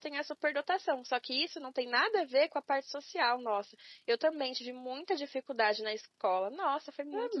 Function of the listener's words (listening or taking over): taking over